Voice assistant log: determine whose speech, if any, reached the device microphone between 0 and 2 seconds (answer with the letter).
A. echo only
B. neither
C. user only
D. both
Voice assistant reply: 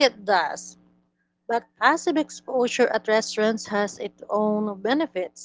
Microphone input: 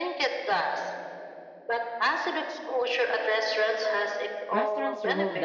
A